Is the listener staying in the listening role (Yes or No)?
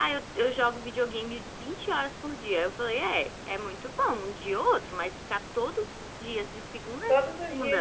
No